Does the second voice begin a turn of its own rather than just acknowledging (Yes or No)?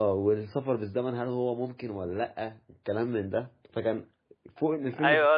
Yes